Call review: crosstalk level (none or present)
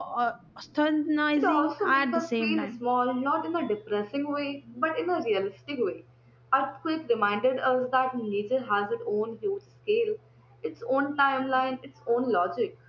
present